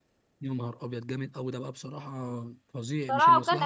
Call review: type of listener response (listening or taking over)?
taking over